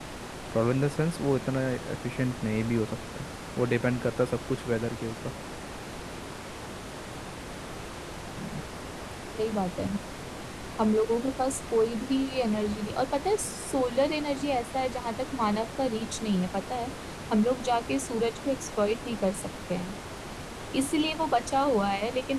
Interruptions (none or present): none